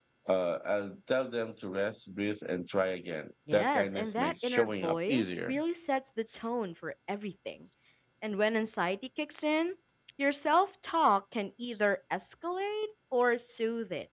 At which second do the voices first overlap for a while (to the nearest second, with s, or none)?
3 s